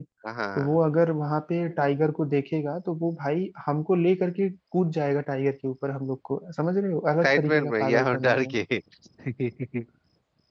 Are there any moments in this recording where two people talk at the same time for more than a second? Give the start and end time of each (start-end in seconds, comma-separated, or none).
7.2-8.6